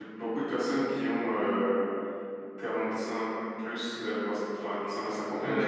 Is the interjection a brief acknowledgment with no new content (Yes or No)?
No